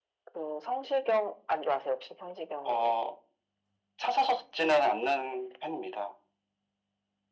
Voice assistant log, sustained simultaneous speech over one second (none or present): none